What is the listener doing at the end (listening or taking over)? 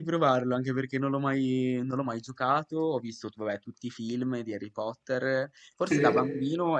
listening